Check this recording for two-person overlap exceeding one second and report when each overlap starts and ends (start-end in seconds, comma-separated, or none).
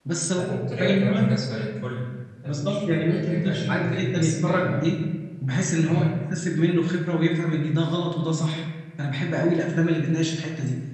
2.5-4.8